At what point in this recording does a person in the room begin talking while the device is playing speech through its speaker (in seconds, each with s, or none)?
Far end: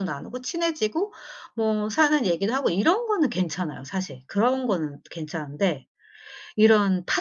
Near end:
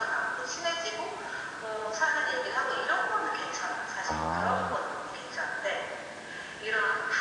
4.1 s